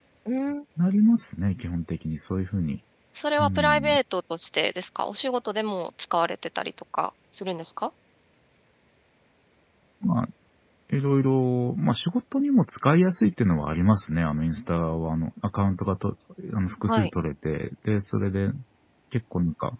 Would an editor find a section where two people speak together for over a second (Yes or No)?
No